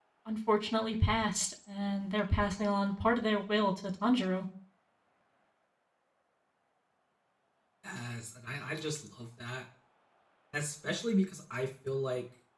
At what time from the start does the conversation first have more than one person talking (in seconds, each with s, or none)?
none